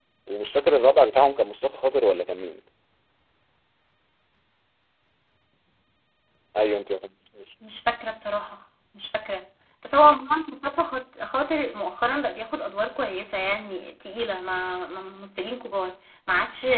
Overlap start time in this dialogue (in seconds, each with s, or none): none